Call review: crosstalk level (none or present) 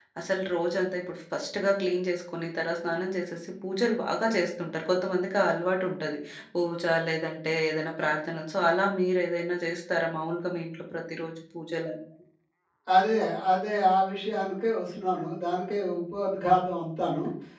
none